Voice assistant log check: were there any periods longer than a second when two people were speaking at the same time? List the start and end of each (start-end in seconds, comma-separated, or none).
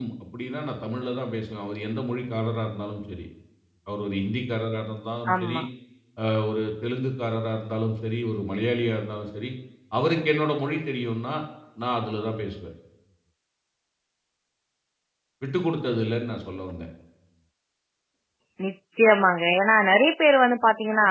none